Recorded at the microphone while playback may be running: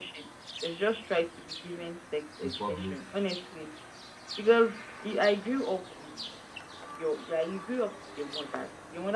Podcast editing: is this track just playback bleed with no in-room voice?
No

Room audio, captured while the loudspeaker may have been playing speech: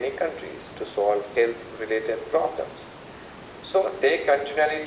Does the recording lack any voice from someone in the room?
Yes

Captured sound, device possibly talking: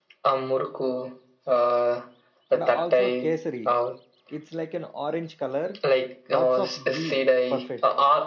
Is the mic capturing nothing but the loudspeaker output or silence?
No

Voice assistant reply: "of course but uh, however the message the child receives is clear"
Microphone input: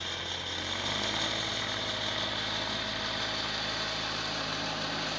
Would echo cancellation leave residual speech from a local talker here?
No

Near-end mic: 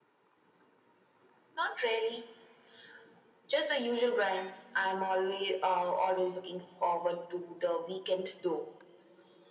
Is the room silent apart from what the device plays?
Yes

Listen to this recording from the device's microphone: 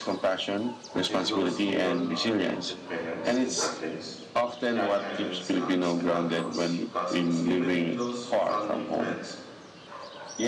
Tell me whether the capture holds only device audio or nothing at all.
No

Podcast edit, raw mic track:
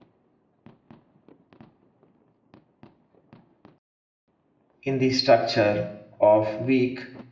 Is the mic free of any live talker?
No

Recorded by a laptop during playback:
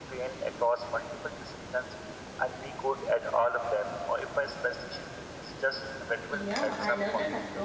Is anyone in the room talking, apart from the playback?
Yes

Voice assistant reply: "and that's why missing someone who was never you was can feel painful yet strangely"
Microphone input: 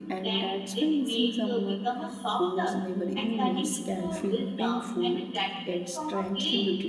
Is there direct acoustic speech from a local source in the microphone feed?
Yes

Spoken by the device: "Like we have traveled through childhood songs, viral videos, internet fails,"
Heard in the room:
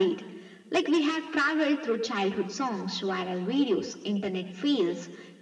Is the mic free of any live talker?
Yes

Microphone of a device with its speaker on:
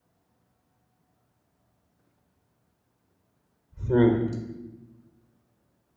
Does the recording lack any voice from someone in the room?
No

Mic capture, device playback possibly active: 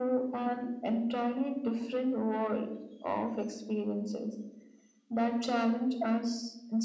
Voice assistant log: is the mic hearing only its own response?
Yes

